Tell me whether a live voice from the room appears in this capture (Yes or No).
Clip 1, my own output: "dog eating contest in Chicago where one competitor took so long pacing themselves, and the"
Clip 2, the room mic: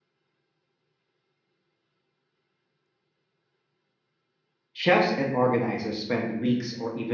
Yes